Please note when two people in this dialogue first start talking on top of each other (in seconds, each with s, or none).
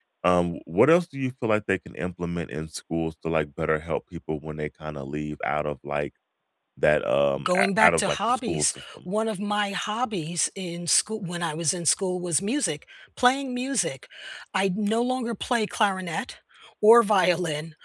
7.4 s